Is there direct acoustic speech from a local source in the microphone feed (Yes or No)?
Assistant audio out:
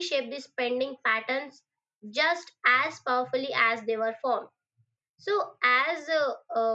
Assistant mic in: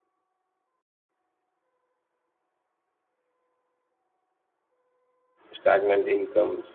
Yes